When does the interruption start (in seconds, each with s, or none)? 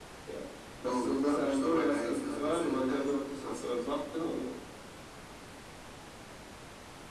0.8 s